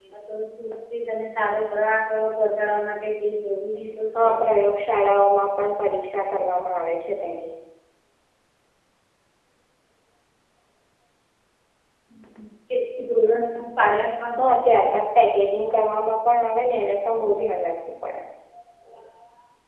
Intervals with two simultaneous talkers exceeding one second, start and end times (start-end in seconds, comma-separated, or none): none